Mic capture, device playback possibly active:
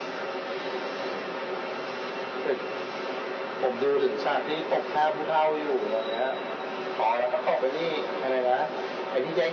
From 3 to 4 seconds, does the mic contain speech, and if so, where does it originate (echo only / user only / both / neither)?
echo only